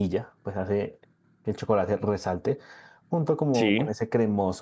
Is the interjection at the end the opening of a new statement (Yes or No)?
No